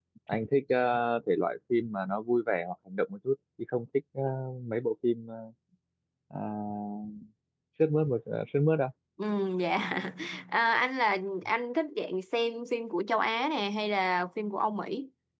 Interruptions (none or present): none